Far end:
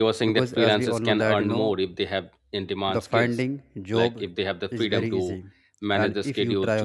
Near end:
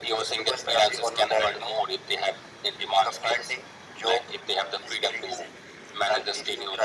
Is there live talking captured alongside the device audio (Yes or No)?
No